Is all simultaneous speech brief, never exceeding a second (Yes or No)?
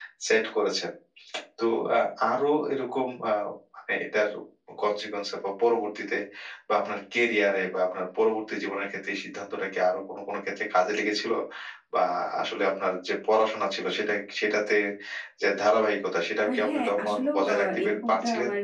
No